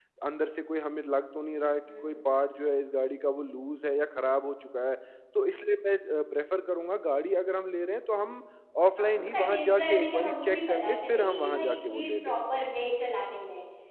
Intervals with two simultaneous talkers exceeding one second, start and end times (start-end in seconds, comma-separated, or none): 9.0-12.3